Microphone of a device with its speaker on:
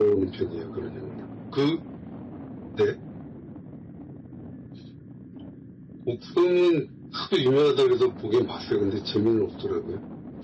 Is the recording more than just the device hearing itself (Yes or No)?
Yes